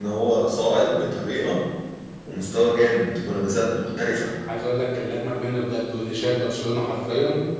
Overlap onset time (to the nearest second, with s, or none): none